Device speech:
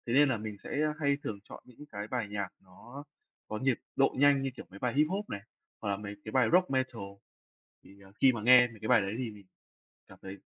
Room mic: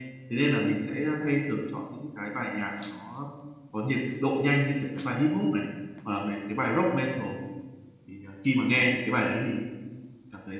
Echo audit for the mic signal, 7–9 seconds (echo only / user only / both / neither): echo only